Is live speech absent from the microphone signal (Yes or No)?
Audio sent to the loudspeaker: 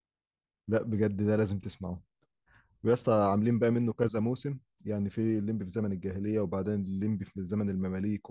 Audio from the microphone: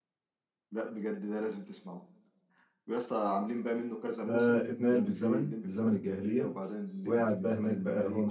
No